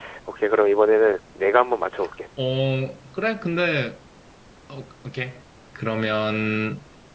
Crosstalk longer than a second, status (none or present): none